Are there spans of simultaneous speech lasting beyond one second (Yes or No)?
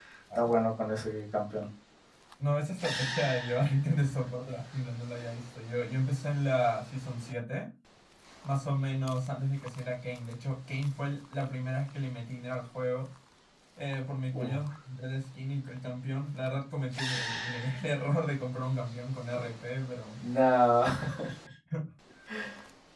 No